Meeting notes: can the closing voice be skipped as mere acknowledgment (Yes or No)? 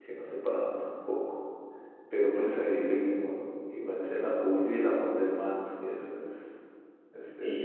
No